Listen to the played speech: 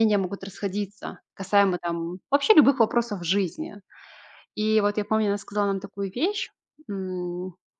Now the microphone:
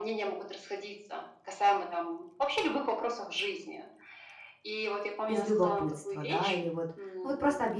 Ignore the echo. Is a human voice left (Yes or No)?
Yes